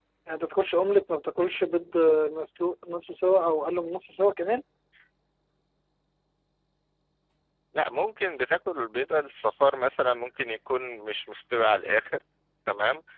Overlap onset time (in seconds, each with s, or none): none